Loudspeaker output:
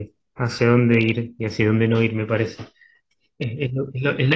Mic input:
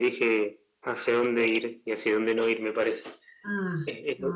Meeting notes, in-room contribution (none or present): present